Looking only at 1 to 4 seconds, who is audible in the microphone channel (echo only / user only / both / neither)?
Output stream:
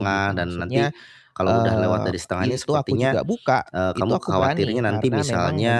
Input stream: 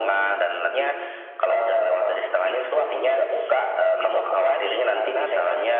echo only